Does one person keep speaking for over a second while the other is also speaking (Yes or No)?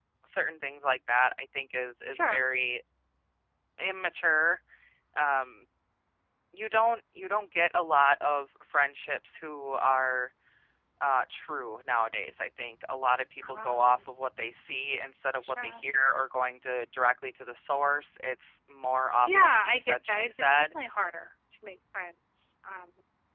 Yes